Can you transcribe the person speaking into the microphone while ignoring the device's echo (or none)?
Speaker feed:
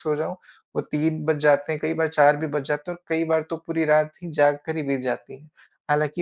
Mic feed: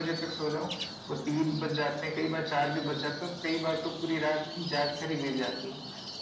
none